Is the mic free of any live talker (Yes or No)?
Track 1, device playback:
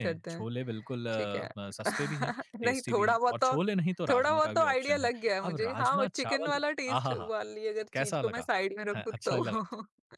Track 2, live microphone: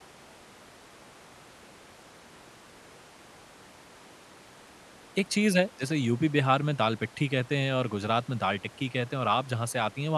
No